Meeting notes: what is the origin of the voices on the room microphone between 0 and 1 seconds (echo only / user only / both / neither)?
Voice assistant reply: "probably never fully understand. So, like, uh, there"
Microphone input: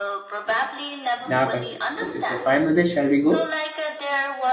echo only